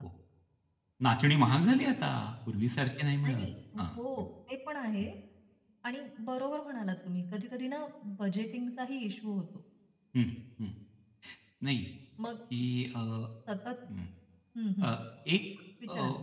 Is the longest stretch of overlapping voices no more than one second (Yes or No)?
Yes